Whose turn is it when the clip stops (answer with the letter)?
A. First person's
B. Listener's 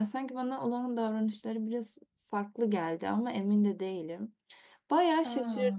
A